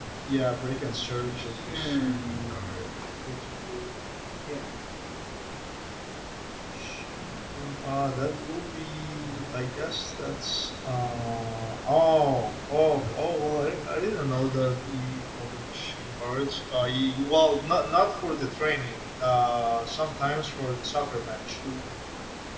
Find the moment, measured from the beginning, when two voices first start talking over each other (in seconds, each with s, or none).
1.5 s